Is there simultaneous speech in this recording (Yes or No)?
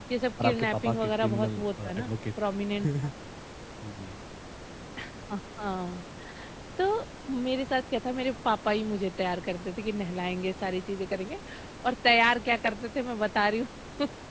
Yes